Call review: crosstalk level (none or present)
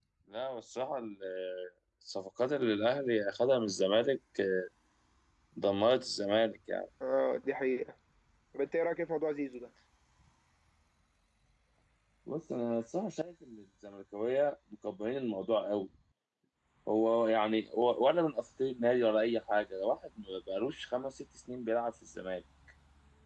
none